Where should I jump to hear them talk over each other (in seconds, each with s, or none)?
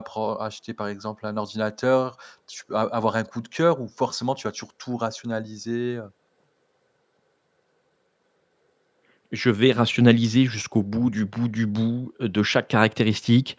none